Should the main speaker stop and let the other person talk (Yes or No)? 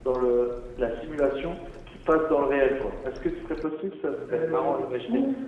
Yes